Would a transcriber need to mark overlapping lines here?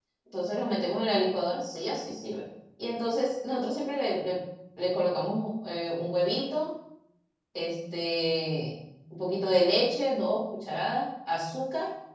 No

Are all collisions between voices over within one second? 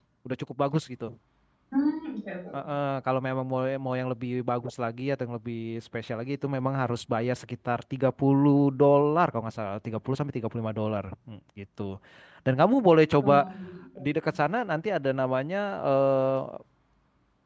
Yes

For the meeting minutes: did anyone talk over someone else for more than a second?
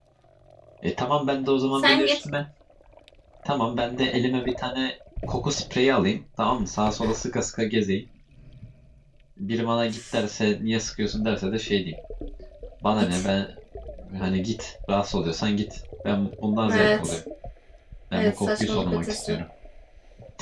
Yes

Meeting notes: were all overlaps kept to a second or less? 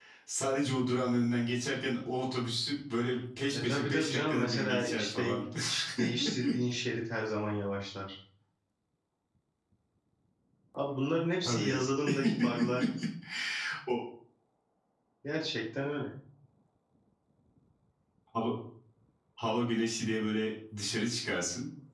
No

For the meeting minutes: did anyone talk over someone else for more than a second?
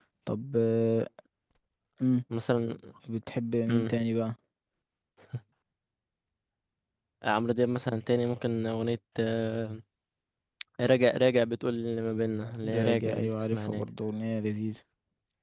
Yes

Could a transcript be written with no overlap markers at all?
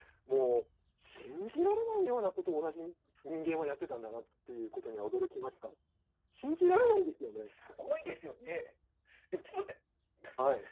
Yes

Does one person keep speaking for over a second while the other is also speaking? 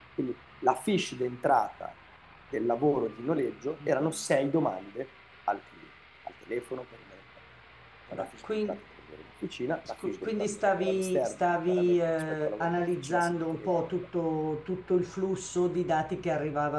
Yes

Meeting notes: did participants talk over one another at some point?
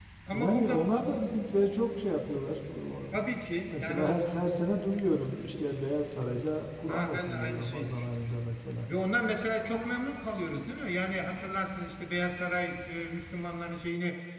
Yes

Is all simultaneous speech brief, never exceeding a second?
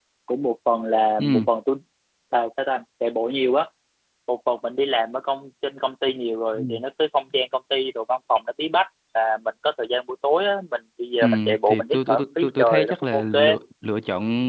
No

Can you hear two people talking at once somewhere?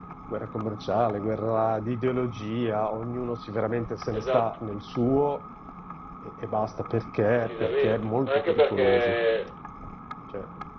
Yes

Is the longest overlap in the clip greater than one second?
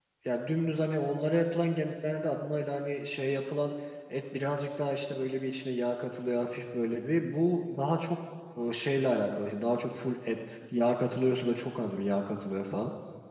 No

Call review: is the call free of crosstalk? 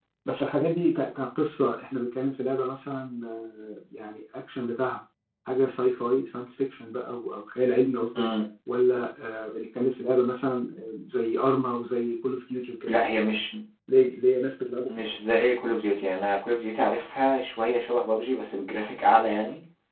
Yes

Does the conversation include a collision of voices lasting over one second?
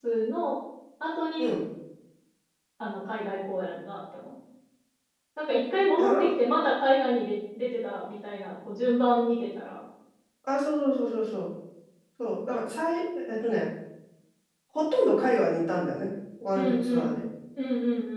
No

